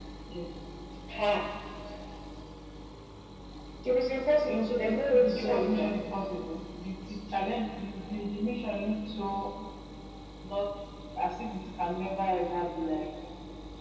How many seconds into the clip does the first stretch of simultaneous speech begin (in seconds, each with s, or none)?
4.5 s